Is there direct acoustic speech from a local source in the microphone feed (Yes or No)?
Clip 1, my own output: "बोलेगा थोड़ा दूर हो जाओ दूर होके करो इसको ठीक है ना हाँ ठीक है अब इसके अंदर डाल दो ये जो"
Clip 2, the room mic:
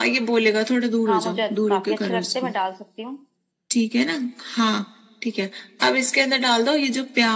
Yes